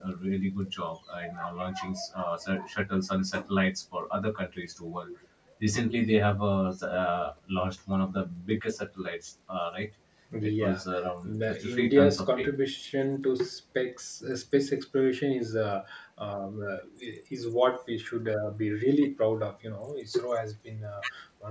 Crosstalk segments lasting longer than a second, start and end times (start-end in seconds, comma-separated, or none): 11.3-12.5